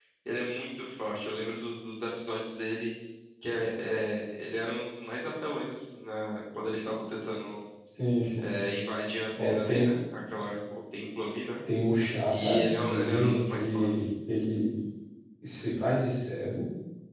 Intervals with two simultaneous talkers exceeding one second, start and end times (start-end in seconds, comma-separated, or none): 12.3-13.9